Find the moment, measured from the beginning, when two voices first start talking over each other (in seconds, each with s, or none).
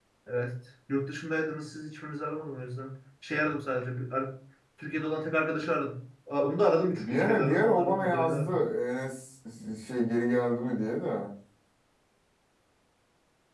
7.0 s